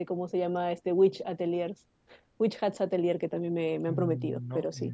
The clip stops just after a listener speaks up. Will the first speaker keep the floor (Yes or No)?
No